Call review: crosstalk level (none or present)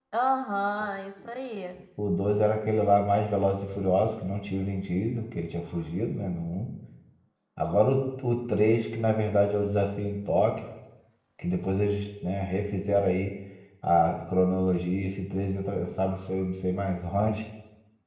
none